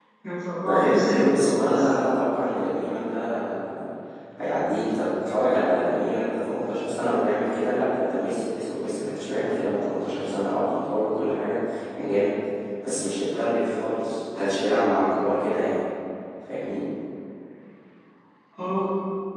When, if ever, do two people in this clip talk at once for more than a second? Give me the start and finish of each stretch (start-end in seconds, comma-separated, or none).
0.6-1.8